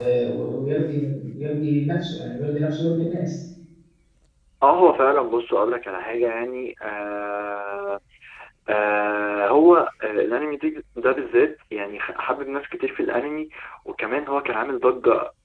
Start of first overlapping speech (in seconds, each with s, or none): none